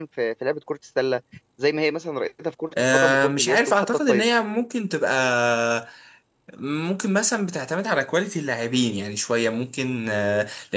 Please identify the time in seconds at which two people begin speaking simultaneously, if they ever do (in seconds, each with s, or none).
2.7 s